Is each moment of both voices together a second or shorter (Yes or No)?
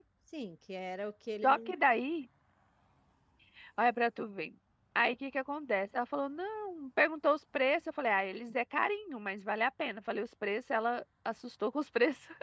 Yes